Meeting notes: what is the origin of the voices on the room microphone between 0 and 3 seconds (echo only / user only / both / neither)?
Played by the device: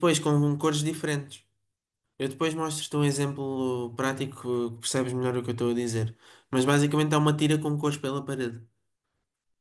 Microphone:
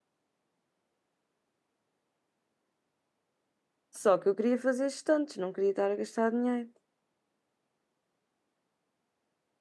neither